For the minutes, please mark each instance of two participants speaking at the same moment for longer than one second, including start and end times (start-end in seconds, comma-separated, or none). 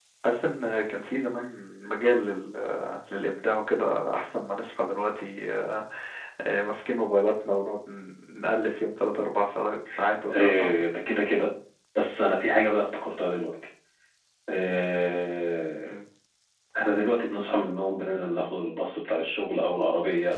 none